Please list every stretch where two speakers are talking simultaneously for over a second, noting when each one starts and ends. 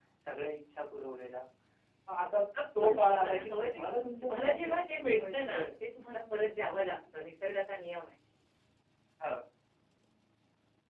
2.8-5.7

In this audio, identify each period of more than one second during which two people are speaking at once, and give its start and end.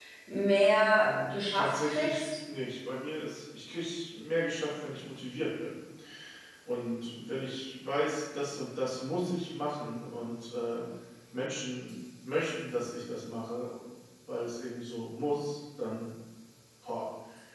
1.0-2.2

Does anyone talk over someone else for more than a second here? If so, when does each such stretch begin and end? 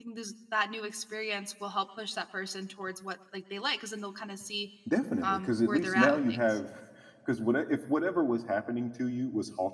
5.2-6.6

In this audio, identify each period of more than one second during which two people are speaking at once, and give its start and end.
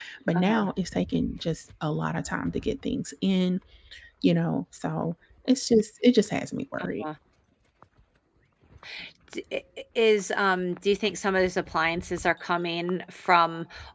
none

